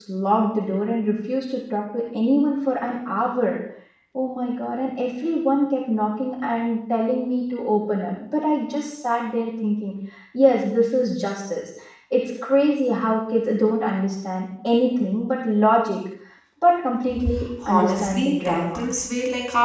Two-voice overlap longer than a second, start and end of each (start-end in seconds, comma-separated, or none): 17.7-18.9